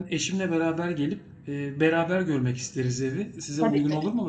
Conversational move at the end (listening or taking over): taking over